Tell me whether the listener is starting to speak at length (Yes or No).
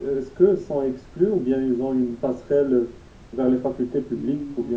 Yes